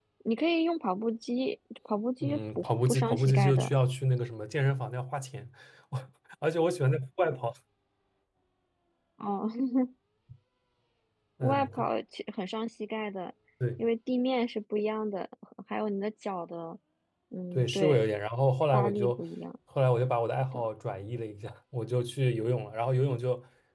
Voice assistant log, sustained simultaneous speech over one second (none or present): present